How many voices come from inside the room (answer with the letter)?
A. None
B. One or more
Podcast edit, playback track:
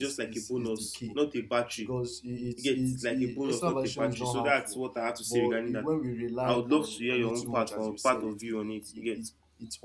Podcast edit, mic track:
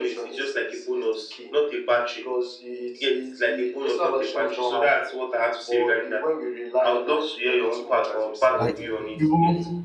B